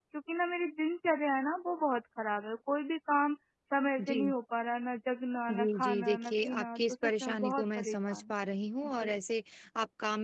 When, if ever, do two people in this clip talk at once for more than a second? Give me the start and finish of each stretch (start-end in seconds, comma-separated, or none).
5.5-8.2